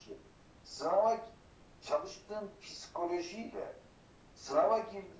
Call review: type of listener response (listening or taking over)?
listening